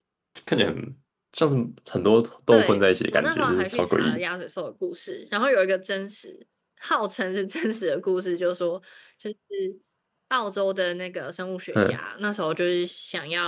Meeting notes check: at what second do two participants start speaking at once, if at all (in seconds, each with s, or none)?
2.5 s